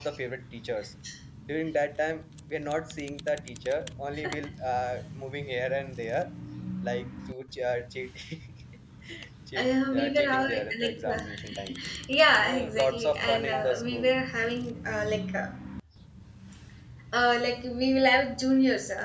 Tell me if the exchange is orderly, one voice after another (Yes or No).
No